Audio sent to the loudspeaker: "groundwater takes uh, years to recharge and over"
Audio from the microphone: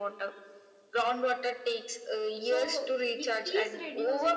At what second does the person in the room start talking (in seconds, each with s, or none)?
2.5 s